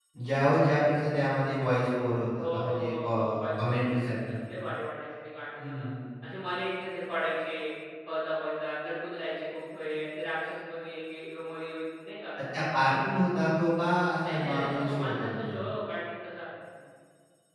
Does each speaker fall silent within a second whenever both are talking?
No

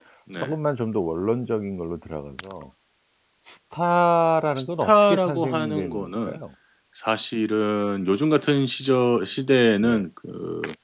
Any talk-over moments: Yes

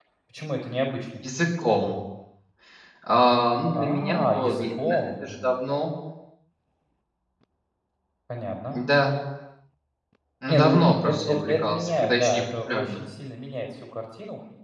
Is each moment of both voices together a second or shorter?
No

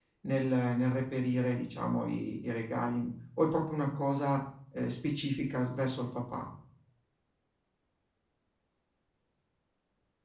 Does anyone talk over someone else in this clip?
No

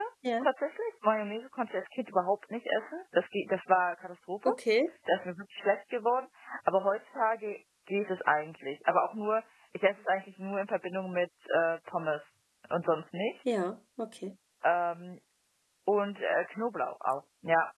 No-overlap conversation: Yes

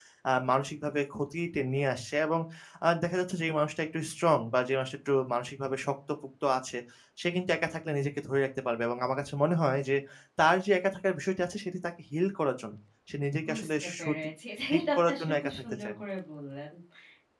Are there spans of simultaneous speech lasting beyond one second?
Yes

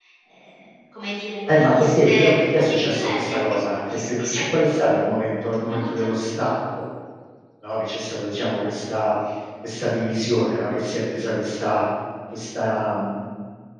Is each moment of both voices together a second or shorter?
No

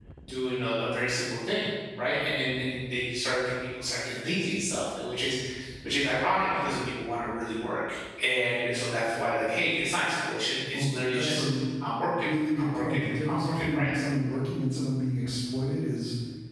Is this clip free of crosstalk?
No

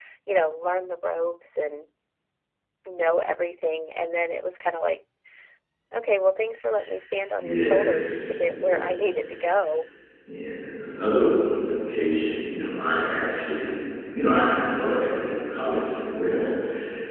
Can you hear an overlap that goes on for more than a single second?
Yes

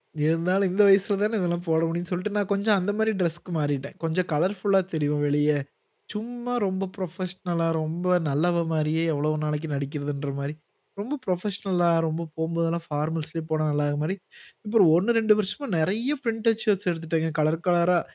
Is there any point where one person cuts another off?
No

